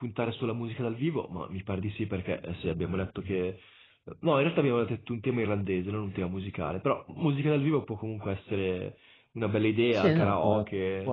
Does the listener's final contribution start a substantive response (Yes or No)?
Yes